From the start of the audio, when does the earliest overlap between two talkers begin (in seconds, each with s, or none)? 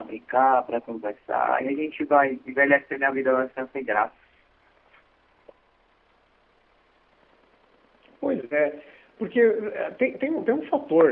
none